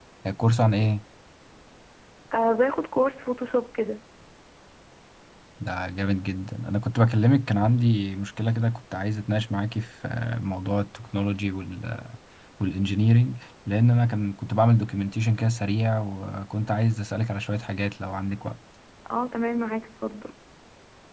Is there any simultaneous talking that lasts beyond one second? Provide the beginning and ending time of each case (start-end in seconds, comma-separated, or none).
none